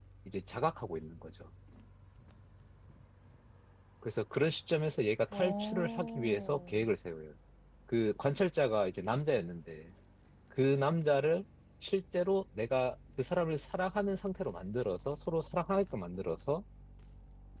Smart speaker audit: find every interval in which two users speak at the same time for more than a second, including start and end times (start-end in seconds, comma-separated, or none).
5.3-6.9